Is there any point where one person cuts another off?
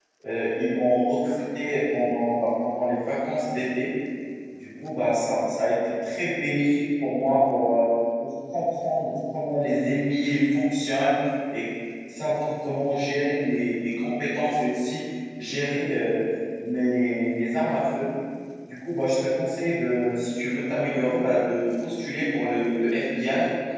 No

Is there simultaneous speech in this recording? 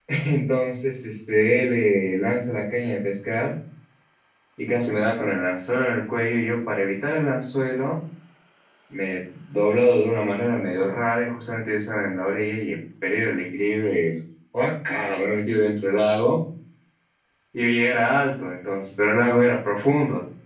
No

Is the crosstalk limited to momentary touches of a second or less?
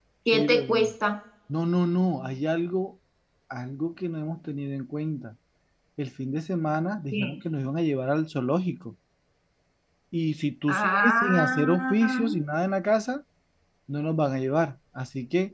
No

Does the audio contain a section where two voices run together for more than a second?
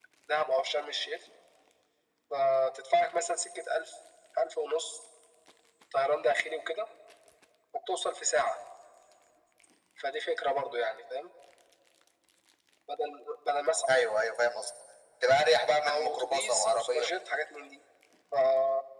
Yes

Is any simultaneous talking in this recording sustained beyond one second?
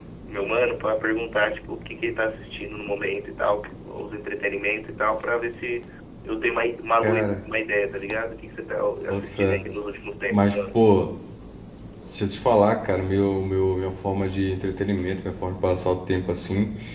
No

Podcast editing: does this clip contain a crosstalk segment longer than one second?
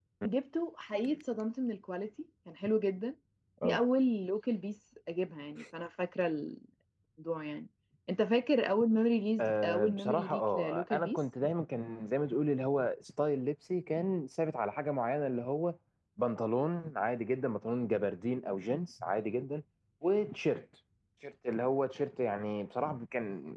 Yes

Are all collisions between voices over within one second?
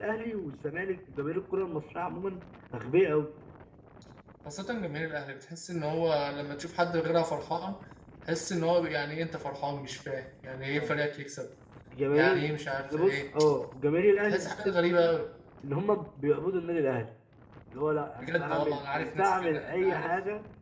No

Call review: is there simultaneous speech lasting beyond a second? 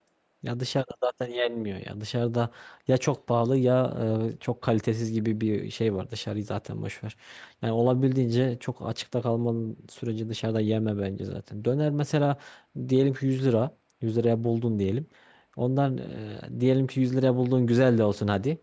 No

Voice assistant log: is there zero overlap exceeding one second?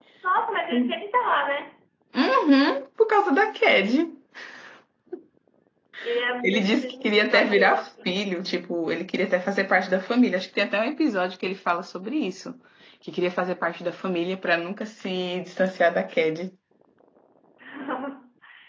No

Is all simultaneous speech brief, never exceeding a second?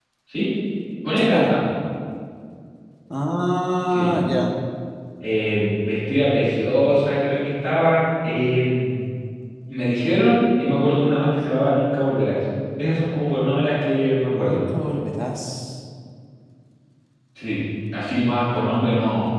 Yes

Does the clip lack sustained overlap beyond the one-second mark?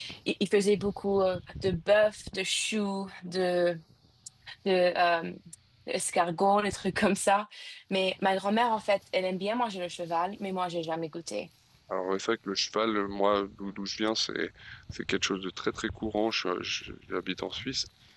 Yes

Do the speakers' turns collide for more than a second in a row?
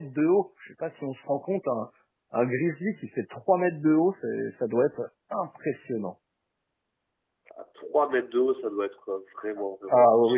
No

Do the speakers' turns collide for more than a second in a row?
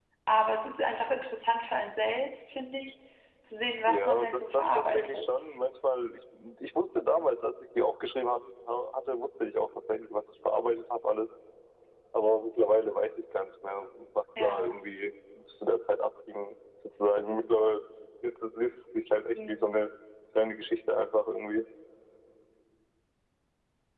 Yes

